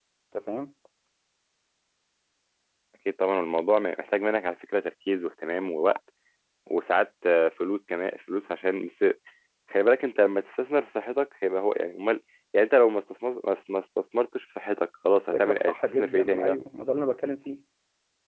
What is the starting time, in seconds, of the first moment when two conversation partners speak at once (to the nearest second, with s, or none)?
15 s